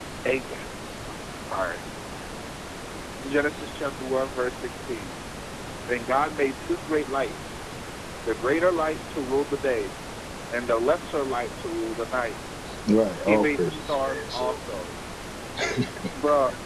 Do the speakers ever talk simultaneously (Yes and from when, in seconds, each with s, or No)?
Yes, from 13.3 s